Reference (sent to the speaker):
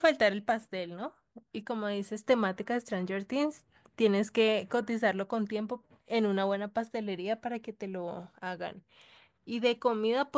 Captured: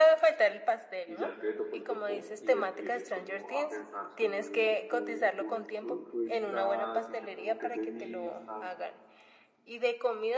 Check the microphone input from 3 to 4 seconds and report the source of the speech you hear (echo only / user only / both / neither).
both